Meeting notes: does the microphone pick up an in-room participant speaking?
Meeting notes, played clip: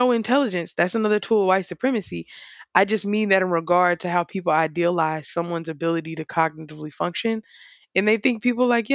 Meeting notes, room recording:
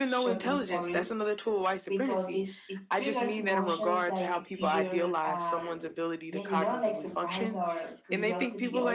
Yes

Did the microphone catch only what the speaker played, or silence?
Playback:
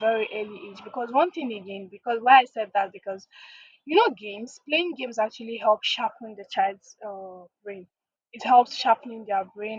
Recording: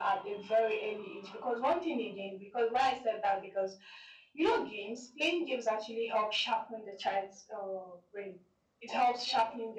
Yes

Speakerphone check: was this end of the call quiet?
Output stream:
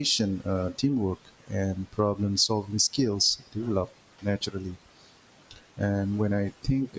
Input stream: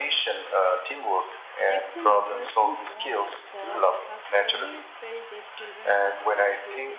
No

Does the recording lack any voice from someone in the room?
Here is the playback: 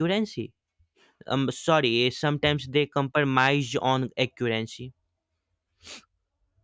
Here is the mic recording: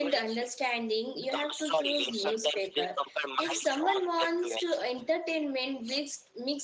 No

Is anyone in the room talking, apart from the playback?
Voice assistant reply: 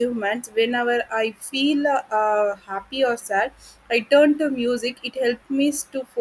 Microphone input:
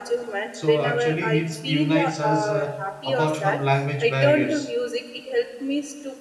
Yes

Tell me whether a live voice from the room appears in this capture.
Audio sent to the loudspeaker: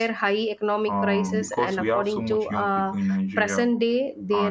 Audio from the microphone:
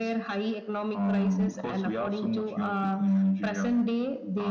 No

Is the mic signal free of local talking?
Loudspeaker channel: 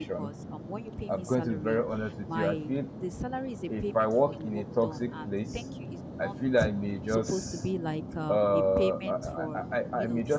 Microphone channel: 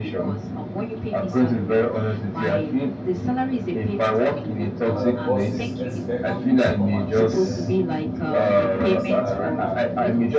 No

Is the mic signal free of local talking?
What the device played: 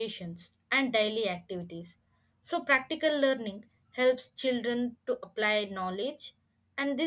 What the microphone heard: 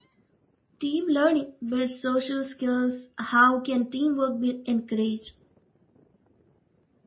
No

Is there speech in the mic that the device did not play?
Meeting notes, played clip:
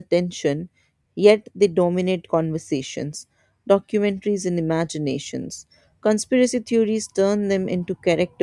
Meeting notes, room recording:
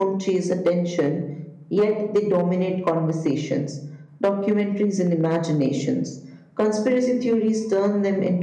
No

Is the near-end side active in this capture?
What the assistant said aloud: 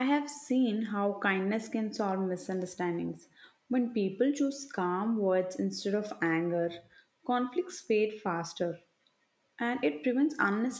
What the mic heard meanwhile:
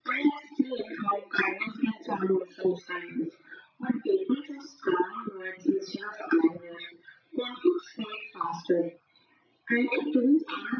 No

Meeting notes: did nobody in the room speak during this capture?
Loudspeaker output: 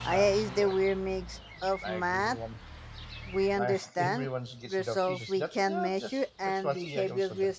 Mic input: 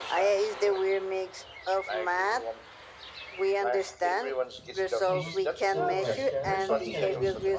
No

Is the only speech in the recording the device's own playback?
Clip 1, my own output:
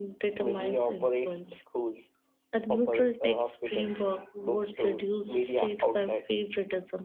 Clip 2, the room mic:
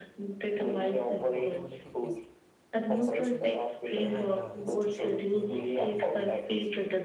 No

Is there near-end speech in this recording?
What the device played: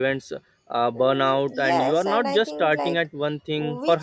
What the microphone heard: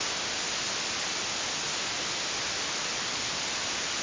No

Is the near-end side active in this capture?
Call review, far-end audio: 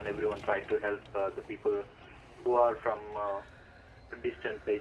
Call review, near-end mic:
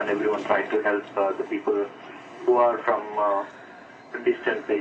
No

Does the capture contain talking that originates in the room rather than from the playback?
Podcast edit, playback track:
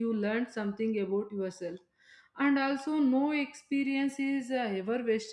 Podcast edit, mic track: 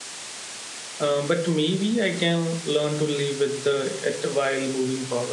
Yes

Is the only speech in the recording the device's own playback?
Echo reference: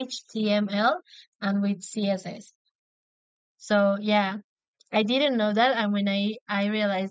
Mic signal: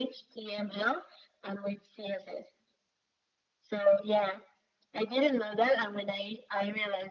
Yes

